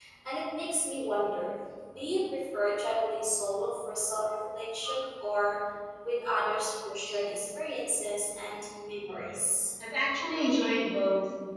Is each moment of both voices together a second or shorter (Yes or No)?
Yes